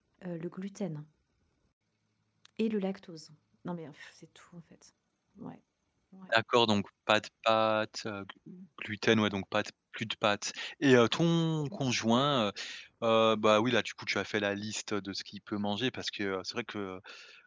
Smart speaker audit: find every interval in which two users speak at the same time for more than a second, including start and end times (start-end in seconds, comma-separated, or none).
none